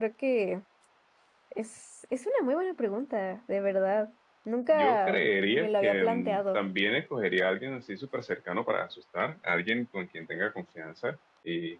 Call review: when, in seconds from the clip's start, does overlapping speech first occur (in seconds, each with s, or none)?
4.7 s